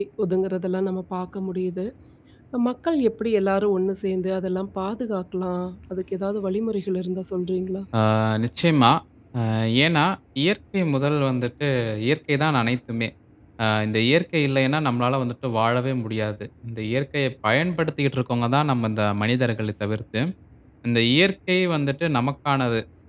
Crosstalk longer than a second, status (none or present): none